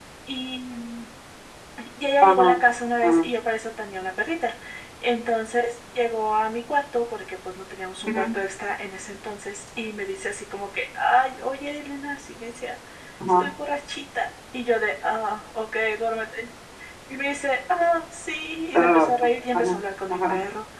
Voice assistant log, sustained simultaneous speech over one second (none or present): none